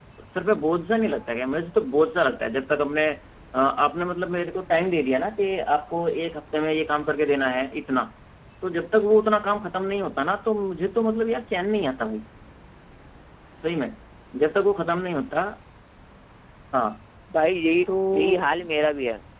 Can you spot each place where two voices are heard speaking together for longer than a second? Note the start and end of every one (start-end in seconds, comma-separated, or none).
none